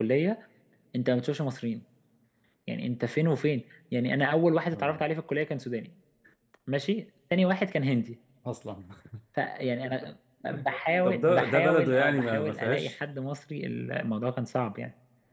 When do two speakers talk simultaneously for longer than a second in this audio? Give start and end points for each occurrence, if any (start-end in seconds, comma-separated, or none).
11.0-12.9